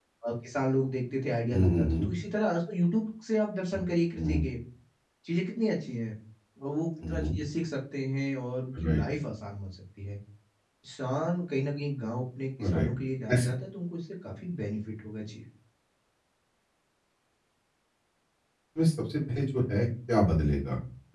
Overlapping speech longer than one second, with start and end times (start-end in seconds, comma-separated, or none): none